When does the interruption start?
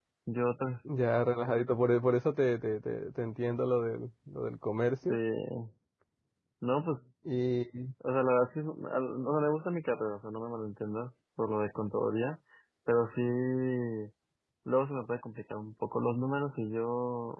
none

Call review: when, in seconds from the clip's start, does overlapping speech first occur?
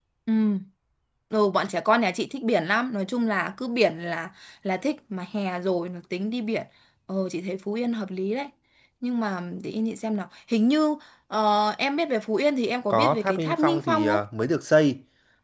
12.9 s

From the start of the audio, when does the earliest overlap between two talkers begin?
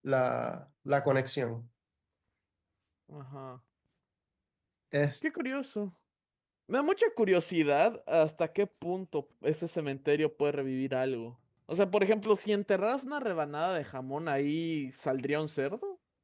none

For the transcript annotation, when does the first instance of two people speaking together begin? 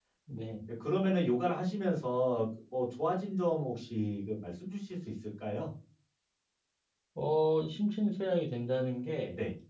none

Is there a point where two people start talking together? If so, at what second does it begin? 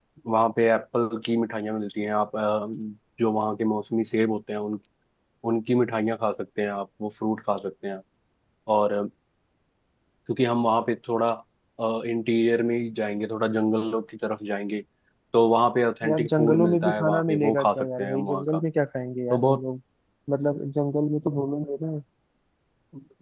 16.0 s

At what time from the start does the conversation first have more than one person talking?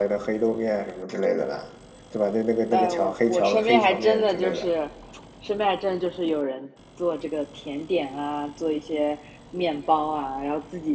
2.7 s

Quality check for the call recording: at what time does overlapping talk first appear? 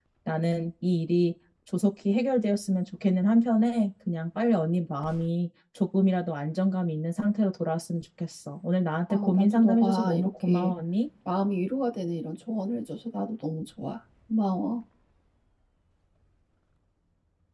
9.1 s

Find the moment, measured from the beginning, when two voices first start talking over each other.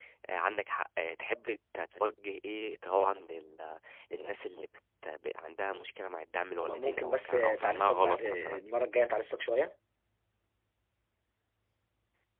6.6 s

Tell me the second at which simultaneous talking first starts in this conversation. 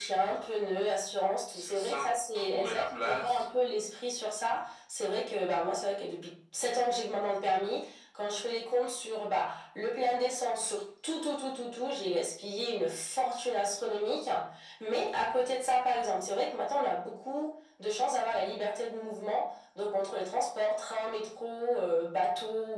1.7 s

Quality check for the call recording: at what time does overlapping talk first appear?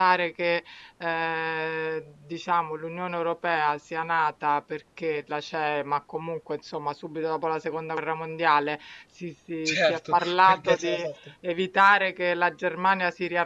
9.7 s

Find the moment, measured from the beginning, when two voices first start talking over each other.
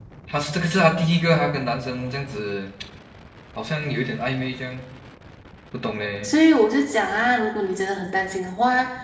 none

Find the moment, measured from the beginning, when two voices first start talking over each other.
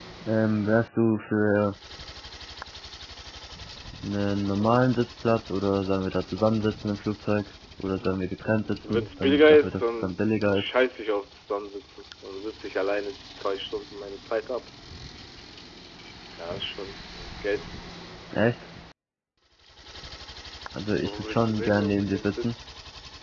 8.8 s

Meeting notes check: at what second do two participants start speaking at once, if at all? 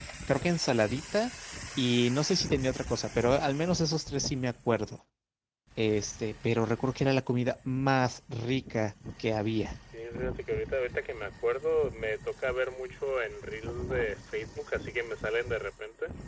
none

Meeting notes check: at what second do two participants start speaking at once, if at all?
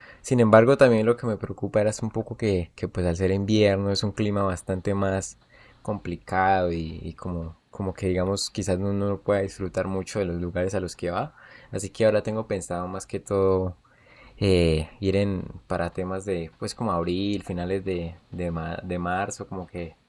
none

